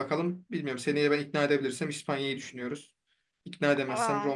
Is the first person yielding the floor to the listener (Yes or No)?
No